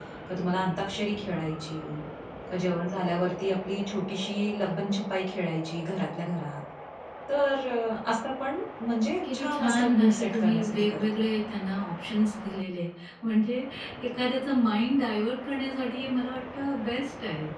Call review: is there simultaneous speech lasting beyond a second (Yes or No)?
Yes